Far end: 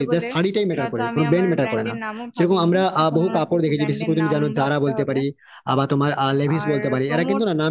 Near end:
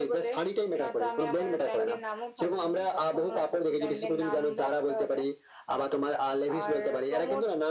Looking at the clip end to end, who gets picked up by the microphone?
echo only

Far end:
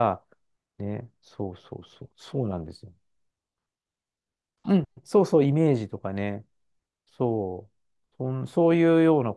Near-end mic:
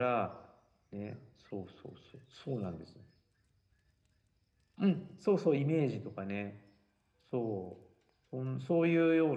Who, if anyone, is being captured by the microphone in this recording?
echo only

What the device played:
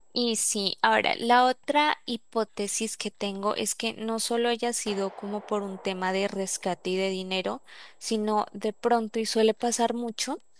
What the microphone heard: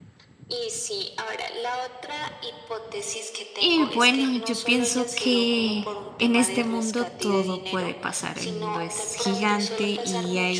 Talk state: both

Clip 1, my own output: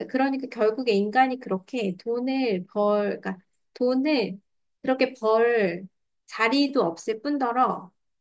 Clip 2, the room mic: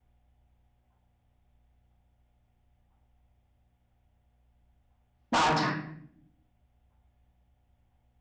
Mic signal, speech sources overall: user only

